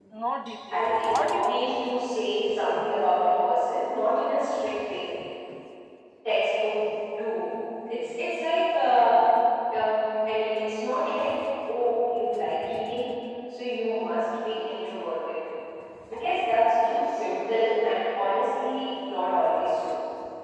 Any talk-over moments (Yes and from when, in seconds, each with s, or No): Yes, from 0.7 s